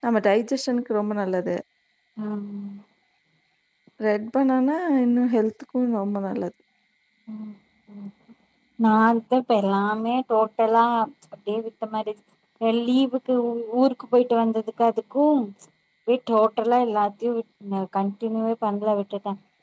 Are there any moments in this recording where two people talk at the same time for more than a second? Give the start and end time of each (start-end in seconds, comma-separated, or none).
none